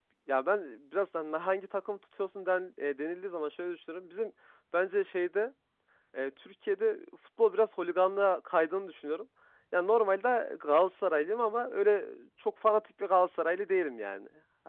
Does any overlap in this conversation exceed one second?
No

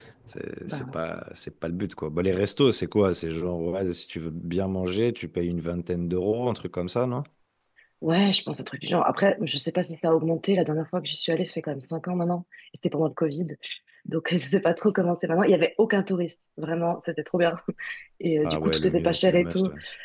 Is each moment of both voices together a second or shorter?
No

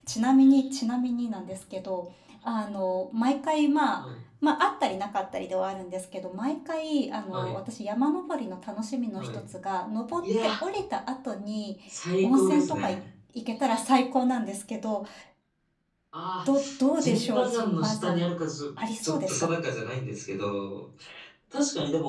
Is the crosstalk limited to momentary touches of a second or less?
No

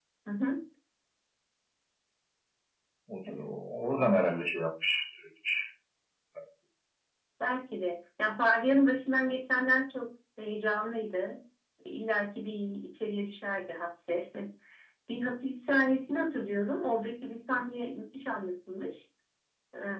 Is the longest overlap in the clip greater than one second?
No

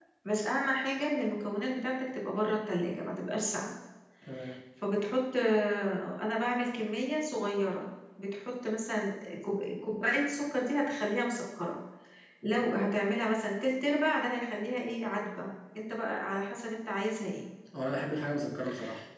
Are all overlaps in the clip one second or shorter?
Yes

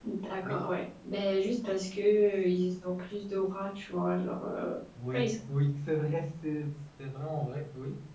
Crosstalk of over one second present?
No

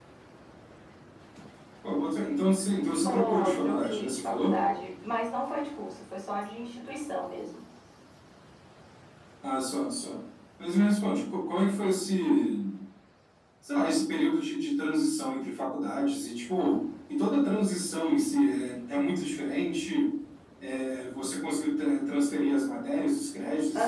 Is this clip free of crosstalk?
No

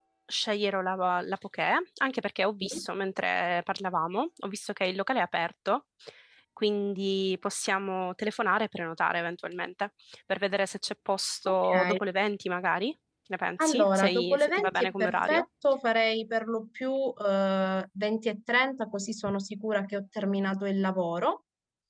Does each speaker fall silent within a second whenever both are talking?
No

